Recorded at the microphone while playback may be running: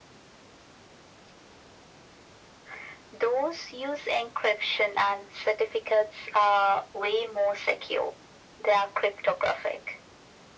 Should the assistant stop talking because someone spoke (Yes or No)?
No